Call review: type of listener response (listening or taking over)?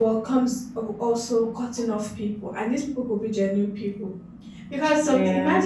listening